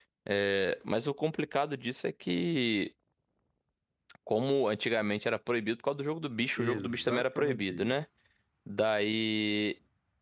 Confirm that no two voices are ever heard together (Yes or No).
No